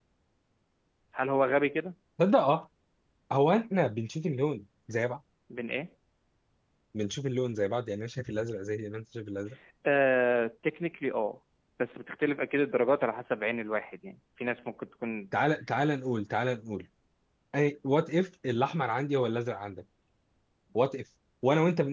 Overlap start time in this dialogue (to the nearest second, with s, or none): none